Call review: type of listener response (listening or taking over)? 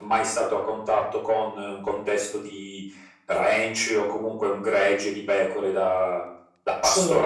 listening